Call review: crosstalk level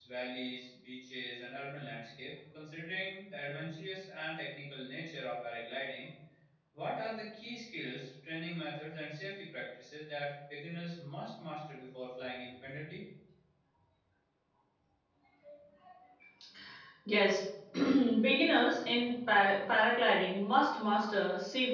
none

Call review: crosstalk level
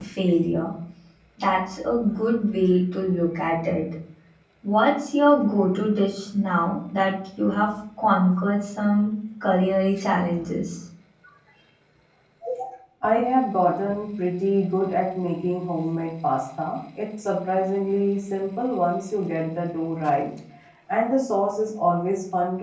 none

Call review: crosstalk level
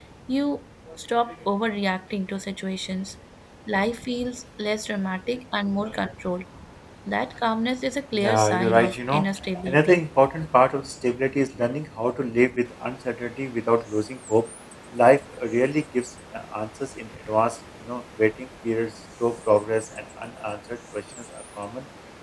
present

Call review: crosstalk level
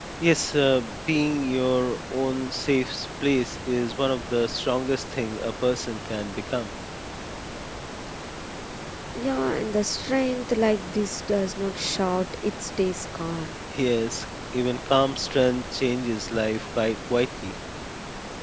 none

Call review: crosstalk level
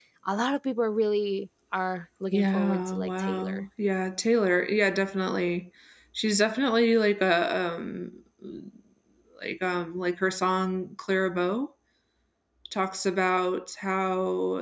present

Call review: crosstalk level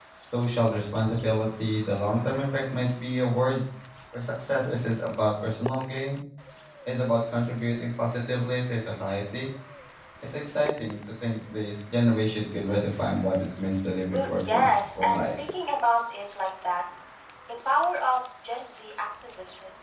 present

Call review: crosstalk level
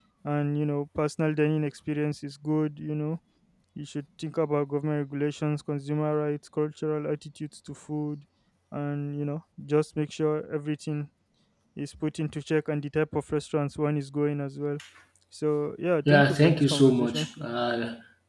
present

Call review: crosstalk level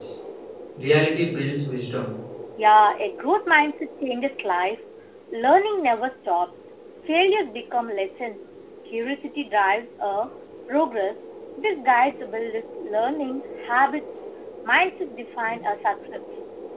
none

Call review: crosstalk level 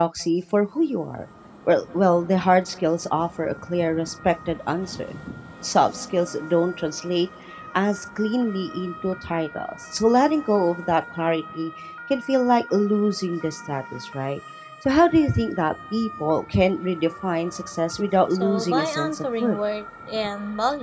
present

